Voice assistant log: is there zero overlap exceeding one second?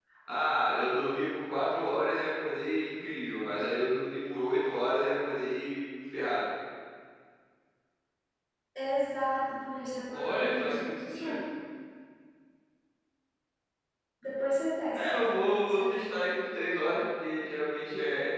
No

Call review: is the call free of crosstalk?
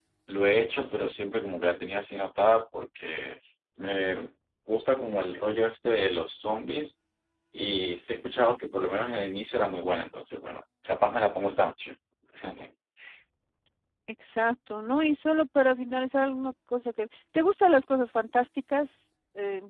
Yes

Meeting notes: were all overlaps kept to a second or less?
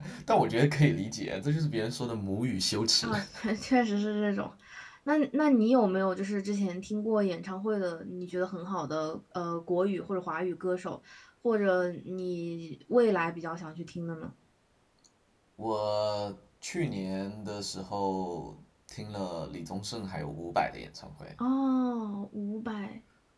Yes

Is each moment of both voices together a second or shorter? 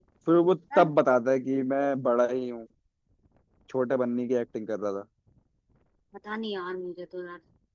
Yes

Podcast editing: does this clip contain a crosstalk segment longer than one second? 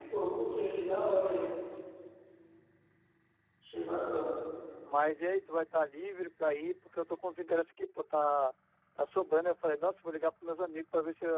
No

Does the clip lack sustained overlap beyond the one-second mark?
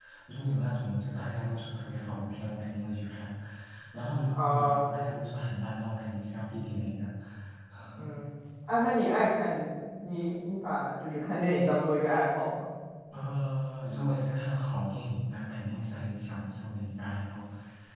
Yes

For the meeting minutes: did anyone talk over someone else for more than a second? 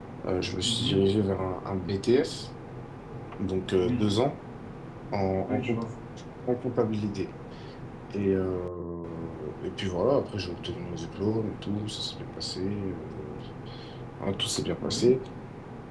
No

